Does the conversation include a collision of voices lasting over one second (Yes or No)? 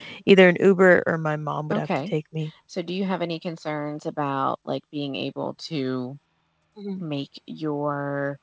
No